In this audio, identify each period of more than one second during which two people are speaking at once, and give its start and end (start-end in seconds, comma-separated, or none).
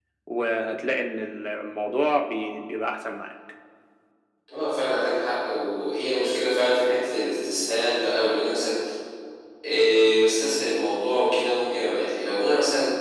none